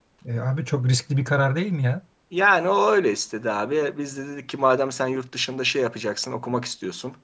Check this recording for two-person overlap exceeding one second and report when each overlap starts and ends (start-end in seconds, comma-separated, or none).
none